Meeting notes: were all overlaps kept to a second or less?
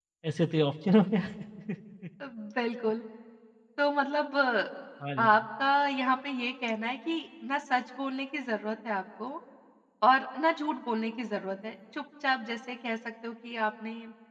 Yes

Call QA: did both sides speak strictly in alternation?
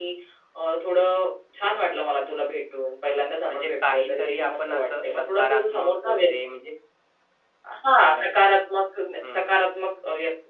No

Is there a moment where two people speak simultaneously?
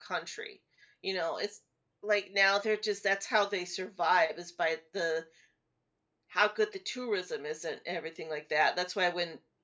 No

